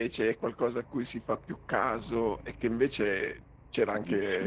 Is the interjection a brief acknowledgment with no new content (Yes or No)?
Yes